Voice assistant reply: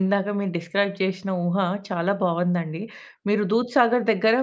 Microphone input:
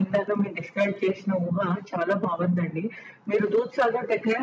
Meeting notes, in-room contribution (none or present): none